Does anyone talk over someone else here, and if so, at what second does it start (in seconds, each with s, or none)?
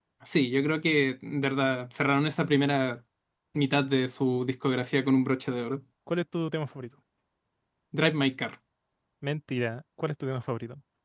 none